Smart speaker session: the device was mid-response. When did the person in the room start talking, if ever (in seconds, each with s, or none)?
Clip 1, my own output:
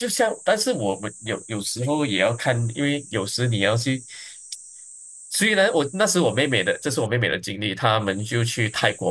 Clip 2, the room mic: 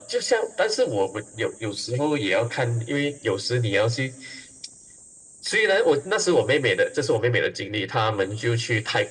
none